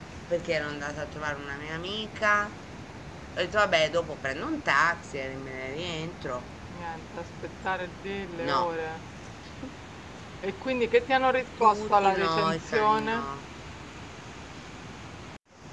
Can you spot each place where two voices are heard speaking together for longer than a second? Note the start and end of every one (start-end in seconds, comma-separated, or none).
11.6-13.2